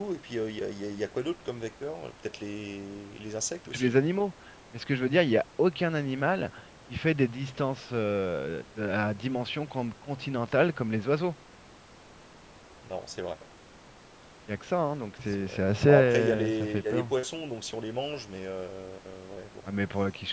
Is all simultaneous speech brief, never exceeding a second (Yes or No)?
No